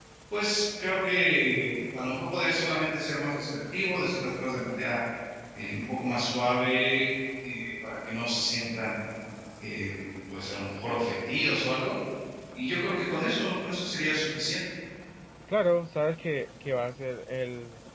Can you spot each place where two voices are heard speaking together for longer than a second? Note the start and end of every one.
none

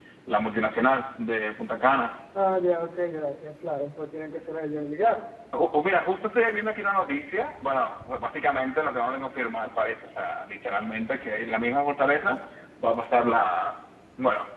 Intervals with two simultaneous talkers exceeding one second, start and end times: none

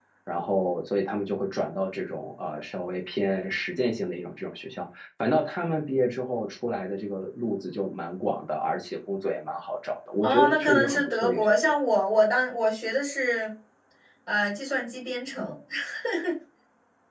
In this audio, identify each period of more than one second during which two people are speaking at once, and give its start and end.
10.2-11.7

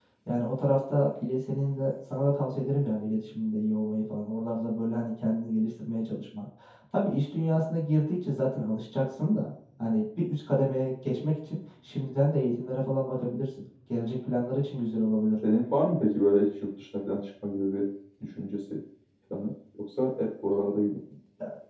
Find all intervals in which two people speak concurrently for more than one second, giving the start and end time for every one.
none

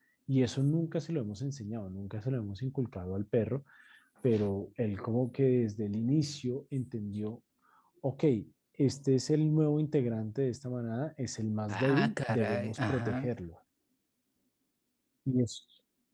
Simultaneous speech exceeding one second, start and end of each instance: 11.7-13.3

